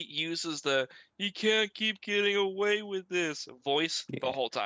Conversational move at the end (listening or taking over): taking over